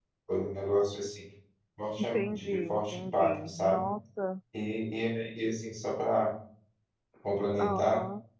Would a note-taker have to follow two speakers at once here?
Yes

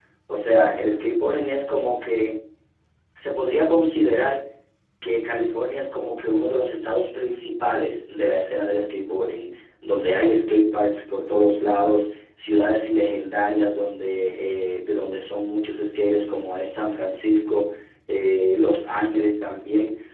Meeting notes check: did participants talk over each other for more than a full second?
No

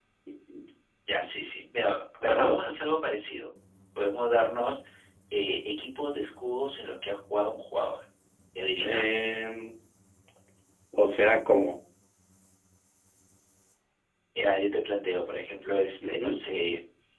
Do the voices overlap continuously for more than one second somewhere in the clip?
No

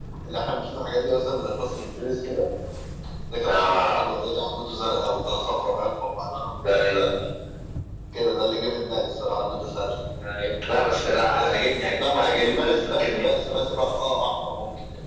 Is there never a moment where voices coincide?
No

